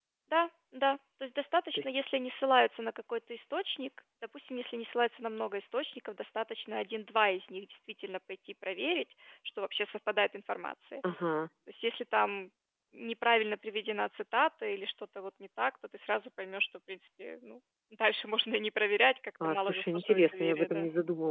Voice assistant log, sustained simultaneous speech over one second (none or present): present